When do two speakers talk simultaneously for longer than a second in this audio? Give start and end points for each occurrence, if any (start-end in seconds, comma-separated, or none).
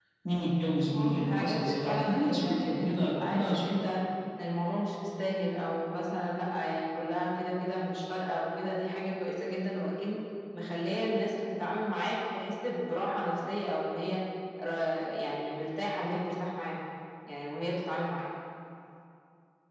0.9-3.6